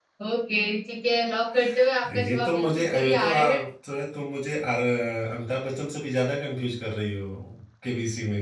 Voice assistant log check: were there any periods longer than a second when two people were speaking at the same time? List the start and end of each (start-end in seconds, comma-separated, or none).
2.2-3.6